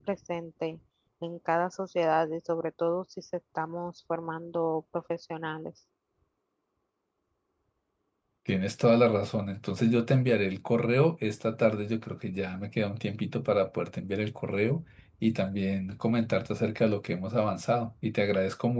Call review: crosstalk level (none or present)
none